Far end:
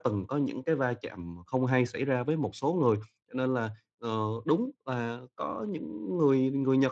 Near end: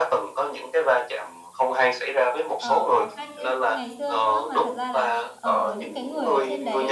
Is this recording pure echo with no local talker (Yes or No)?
No